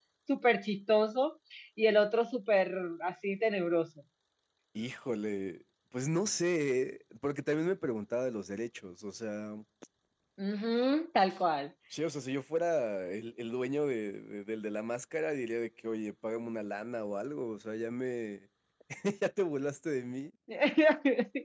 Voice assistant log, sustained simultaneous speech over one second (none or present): none